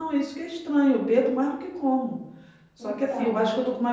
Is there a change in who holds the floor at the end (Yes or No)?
No